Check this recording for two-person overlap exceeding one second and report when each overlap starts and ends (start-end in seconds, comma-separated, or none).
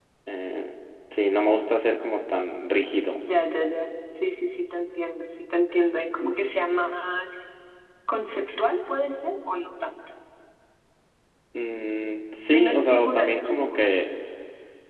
12.5-13.8